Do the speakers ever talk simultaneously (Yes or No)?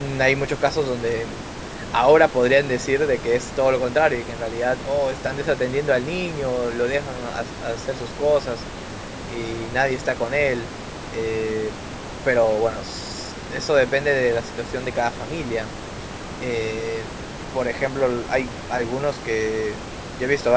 No